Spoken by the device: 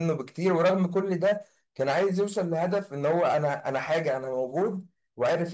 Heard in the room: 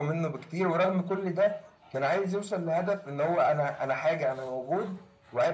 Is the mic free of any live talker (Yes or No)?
Yes